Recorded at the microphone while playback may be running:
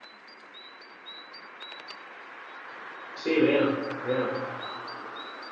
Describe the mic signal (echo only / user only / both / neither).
user only